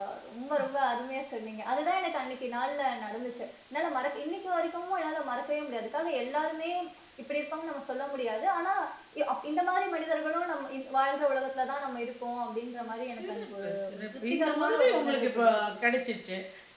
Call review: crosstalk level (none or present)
present